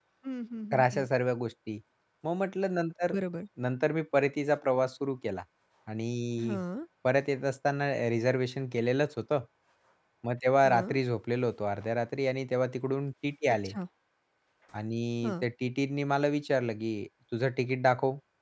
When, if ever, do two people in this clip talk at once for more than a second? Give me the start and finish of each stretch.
none

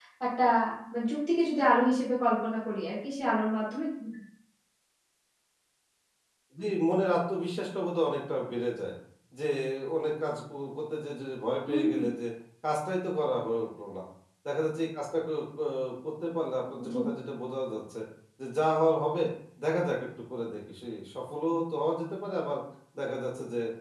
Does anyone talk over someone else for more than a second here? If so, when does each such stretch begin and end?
none

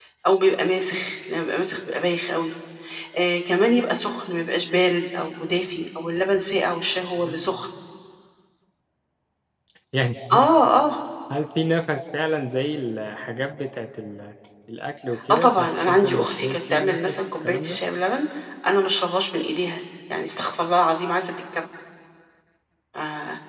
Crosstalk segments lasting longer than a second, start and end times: 15.3-17.8

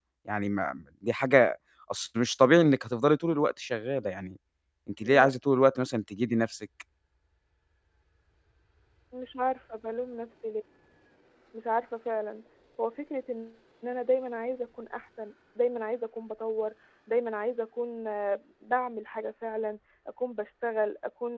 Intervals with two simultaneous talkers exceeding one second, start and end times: none

